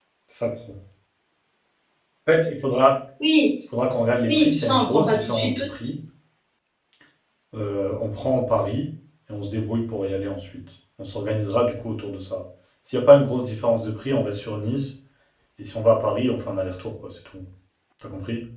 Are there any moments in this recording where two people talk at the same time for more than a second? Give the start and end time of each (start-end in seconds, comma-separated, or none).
4.3-5.6